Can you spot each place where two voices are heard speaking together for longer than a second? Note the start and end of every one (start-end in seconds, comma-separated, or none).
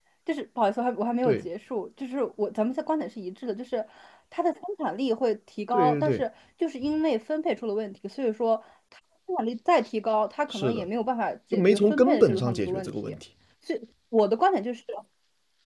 11.5-13.2